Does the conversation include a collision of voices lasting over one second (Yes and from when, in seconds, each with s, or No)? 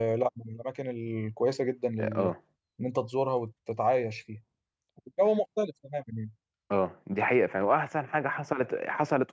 No